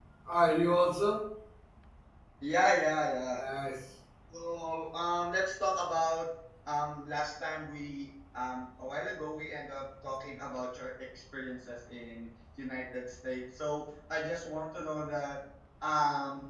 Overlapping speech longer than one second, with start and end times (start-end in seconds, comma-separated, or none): none